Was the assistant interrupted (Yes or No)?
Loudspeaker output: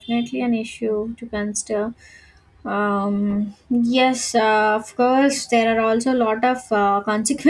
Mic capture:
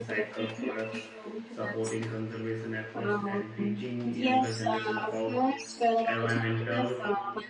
Yes